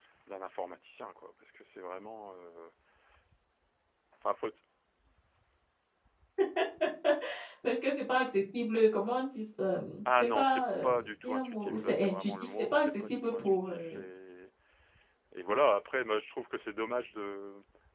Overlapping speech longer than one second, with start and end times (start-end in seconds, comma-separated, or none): 10.1-14.0